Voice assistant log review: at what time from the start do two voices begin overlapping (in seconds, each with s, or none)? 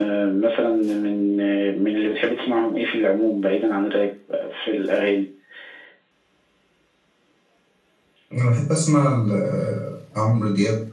none